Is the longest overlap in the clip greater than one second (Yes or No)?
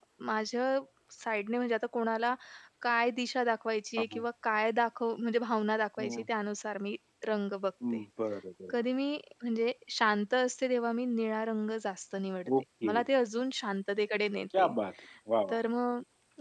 No